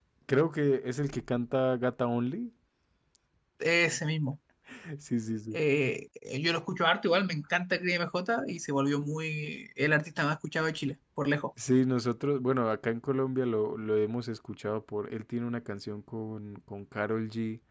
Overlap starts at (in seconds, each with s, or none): none